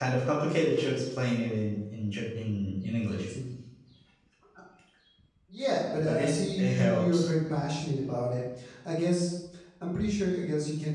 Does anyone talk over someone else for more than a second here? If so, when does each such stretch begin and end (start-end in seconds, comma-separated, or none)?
6.0-7.2